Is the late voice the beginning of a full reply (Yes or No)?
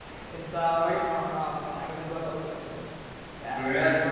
Yes